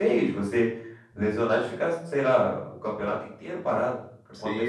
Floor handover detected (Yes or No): Yes